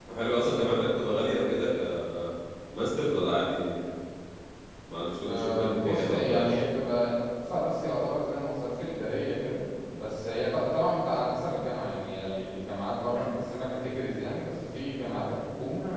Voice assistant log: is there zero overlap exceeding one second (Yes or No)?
No